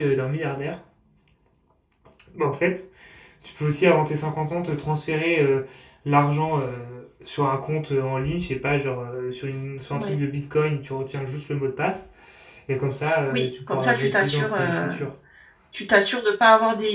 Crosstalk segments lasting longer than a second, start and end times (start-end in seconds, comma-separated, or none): 13.3-14.9